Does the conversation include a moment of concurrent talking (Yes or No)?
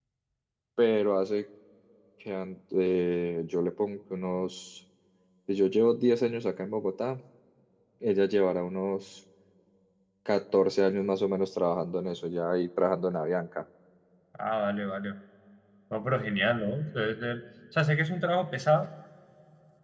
No